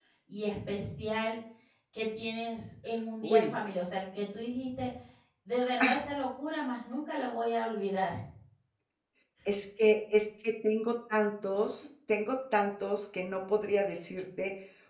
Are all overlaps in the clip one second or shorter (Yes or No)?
Yes